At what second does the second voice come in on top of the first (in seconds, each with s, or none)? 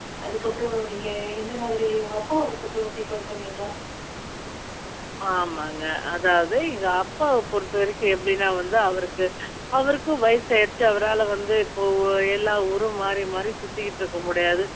none